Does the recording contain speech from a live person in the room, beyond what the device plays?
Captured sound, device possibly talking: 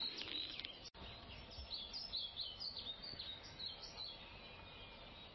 No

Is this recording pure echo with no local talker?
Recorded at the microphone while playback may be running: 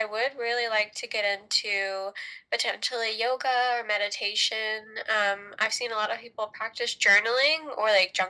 Yes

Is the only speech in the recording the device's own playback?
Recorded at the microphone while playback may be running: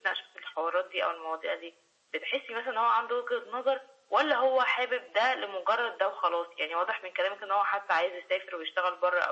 Yes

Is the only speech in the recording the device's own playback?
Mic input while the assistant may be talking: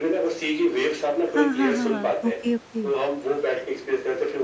No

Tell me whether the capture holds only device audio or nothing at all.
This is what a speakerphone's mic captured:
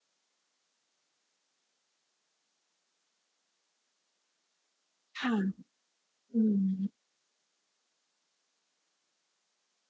No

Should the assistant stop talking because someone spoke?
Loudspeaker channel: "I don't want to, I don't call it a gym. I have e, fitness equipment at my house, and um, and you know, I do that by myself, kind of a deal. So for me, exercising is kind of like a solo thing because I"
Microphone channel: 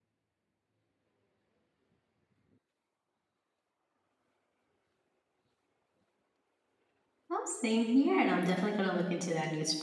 Yes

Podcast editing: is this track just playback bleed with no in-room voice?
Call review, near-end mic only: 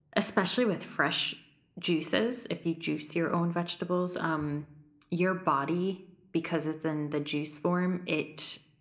No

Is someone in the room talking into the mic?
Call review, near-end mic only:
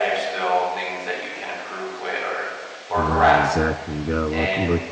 Yes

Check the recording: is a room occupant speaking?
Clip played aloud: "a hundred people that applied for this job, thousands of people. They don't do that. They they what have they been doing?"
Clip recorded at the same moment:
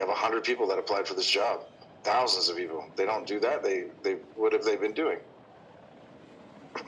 No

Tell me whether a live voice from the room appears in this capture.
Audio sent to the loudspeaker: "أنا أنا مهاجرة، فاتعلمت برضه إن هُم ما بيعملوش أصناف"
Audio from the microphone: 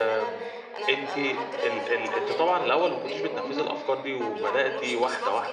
Yes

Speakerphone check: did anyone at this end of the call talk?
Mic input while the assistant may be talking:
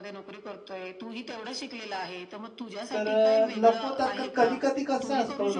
Yes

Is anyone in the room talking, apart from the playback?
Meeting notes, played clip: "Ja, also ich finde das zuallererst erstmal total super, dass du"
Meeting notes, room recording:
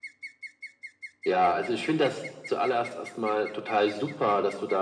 No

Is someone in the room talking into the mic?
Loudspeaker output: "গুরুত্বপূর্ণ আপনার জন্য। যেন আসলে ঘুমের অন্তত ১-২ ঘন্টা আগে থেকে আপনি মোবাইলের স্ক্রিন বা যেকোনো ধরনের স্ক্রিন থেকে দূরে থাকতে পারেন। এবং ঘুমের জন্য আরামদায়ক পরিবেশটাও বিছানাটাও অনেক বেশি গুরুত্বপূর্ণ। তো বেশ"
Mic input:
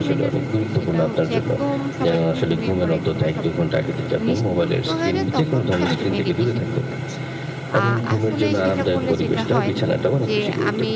Yes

